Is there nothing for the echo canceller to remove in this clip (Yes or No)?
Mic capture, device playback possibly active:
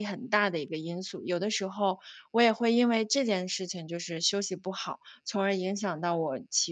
Yes